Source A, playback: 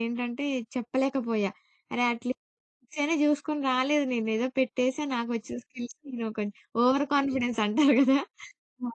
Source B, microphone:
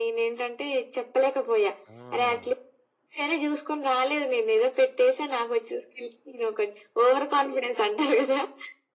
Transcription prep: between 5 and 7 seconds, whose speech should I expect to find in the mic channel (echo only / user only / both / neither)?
echo only